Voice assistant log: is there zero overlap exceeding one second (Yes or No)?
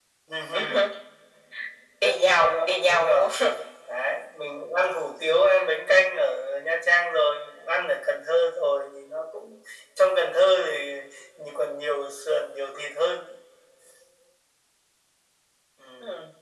No